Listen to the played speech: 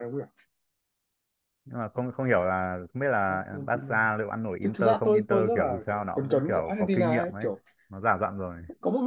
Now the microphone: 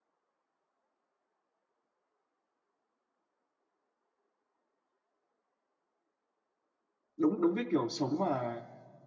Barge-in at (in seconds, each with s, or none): 7.2 s